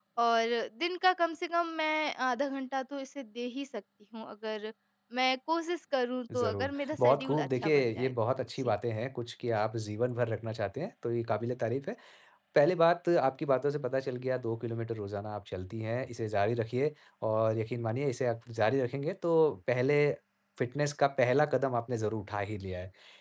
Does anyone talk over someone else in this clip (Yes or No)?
Yes